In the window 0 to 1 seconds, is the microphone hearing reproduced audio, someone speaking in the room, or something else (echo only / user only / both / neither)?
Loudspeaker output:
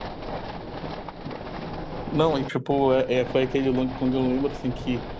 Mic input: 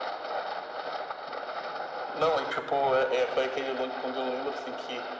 neither